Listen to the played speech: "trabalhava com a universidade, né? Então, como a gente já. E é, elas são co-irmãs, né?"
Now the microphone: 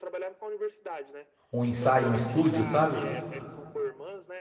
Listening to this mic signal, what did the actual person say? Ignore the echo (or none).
um ensaio, um estúdio, sabe?